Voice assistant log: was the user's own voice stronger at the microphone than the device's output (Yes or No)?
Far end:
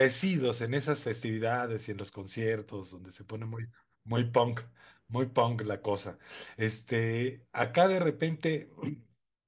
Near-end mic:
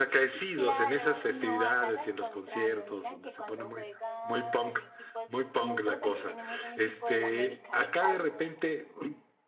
No